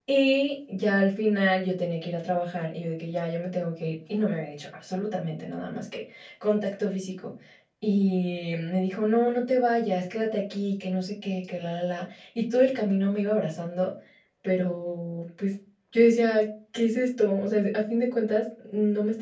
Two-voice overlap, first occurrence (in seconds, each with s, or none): none